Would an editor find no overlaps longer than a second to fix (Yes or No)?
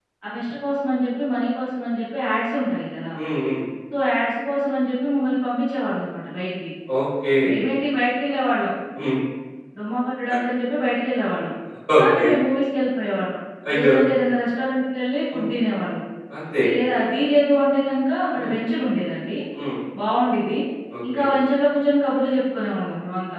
Yes